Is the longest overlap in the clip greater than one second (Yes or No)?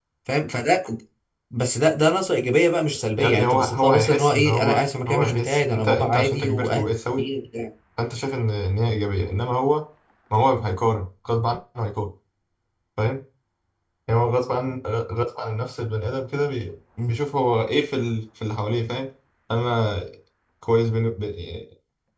Yes